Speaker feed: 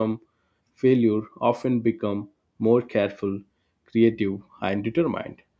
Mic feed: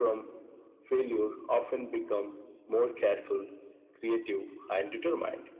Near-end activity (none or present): none